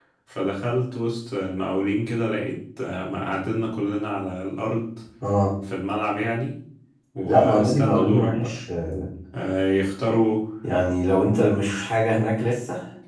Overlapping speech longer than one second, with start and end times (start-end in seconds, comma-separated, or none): 7.2-8.5